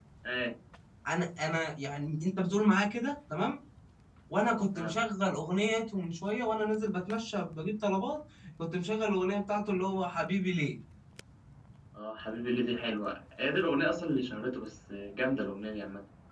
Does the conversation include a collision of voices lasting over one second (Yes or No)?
No